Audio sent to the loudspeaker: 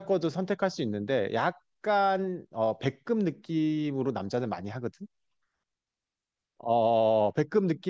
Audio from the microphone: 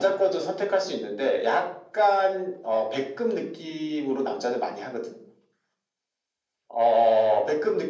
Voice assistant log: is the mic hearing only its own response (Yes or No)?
Yes